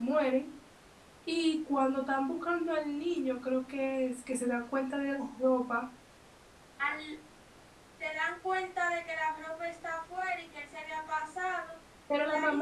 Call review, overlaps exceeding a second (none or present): none